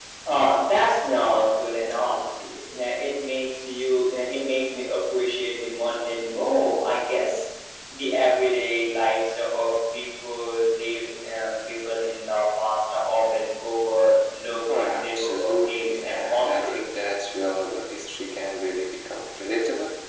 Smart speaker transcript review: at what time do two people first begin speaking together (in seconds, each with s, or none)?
14.7 s